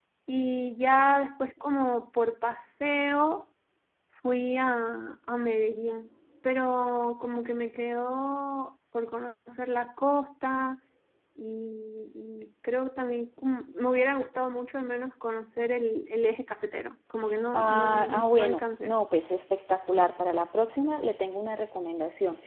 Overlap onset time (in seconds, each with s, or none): 17.5 s